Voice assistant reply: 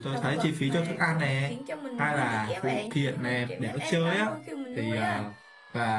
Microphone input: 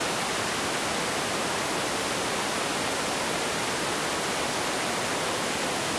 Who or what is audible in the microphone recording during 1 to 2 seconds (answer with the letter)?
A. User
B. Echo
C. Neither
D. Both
C